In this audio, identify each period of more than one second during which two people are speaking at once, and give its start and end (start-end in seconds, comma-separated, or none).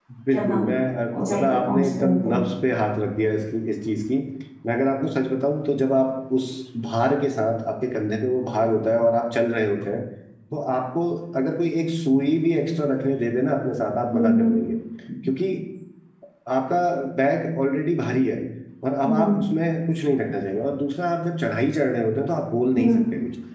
1.2-2.4